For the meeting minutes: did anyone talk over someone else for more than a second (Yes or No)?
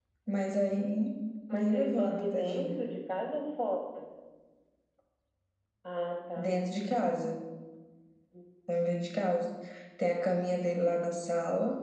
Yes